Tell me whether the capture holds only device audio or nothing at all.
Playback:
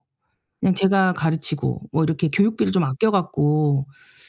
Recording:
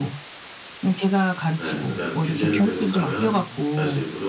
No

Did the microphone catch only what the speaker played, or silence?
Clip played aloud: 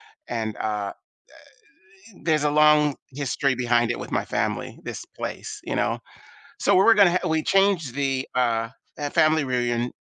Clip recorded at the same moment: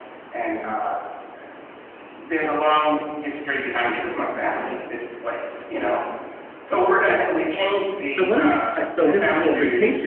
No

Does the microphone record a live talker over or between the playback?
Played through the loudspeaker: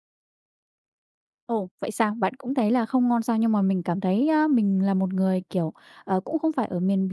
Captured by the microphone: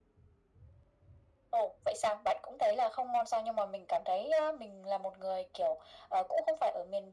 No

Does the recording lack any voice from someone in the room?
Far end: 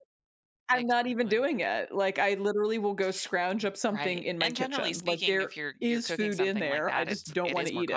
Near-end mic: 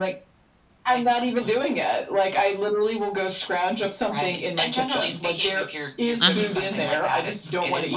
No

